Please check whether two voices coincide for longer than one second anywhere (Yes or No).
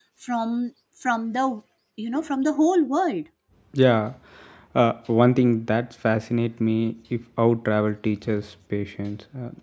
No